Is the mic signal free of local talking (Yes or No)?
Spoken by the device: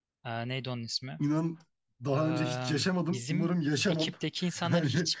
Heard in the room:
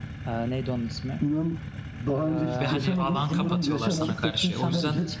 No